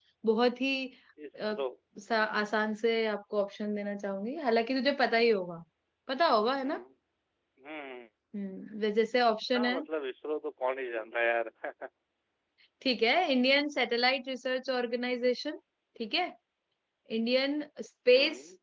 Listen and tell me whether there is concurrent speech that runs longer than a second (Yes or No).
No